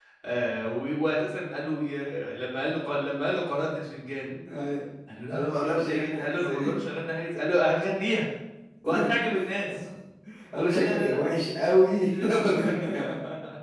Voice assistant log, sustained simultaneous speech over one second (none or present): present